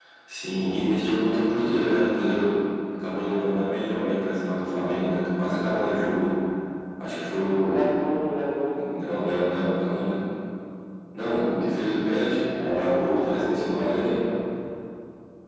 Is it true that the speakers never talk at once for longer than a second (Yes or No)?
No